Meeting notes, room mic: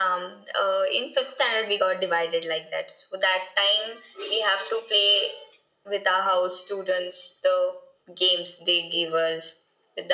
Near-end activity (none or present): none